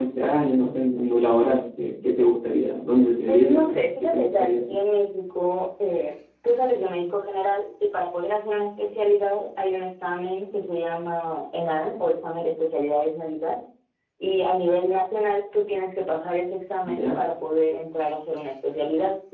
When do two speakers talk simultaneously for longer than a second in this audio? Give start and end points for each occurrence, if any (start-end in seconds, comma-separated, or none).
3.2-4.8